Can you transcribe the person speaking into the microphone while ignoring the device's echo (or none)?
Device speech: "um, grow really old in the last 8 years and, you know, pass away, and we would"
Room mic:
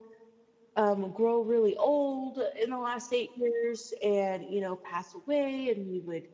none